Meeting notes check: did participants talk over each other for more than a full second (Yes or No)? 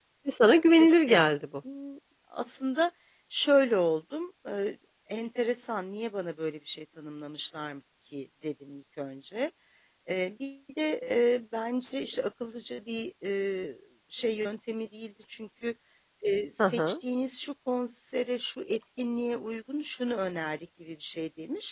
No